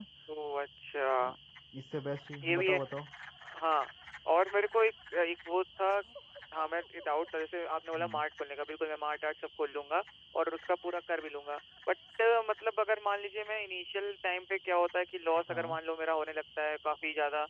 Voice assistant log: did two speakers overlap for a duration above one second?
No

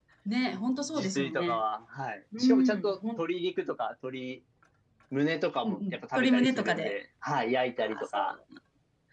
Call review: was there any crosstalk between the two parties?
Yes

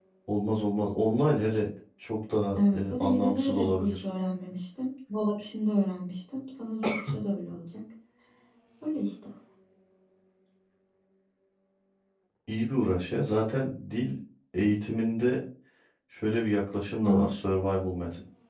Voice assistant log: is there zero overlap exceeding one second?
No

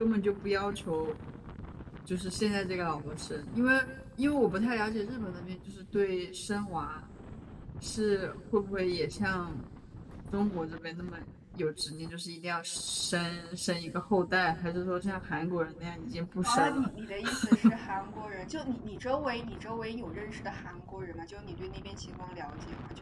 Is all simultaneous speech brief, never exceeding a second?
Yes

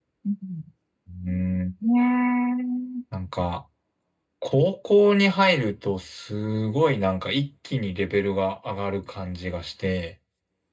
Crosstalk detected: No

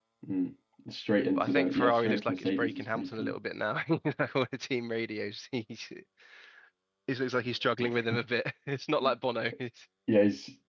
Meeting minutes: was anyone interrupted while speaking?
Yes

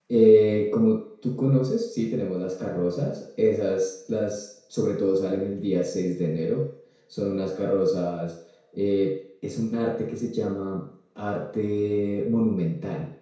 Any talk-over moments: No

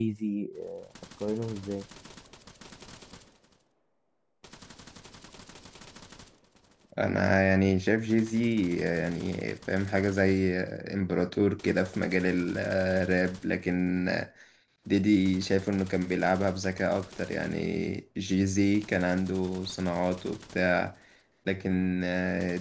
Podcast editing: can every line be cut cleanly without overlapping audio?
Yes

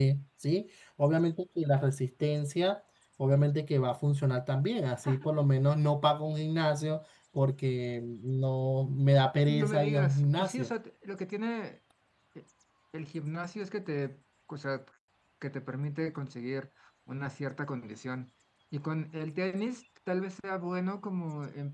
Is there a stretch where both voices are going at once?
Yes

